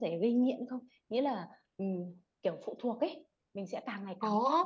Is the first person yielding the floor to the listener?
Yes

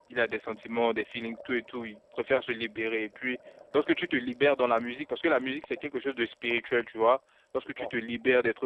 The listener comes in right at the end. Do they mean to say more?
No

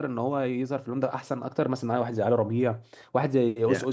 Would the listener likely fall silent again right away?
No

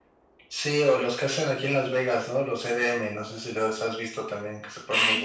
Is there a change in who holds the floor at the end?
Yes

